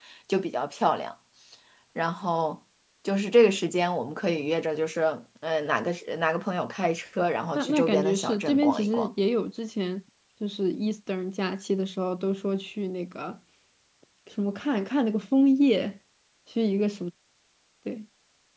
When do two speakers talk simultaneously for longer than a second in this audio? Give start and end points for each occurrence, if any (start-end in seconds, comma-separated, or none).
7.5-9.1